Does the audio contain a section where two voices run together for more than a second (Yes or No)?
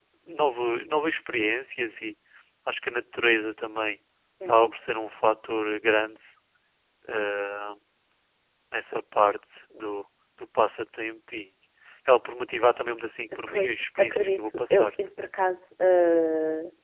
Yes